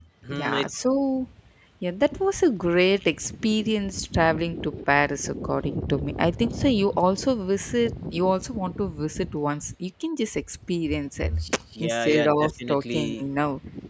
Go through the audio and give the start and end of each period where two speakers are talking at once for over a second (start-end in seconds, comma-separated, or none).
11.8-13.2